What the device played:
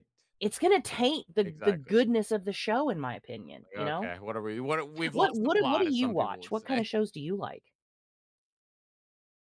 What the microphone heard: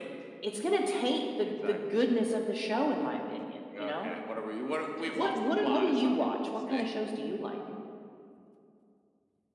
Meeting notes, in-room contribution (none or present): none